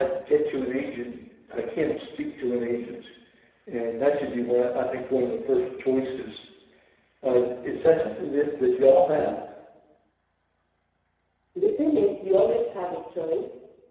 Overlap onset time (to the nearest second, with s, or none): none